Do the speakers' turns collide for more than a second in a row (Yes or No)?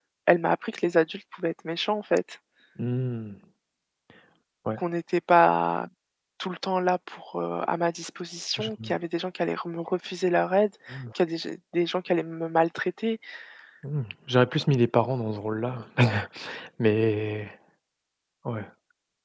No